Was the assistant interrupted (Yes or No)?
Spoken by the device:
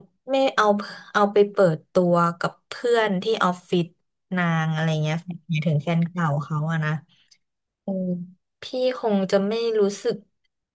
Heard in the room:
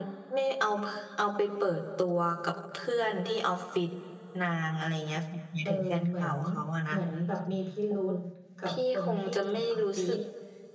Yes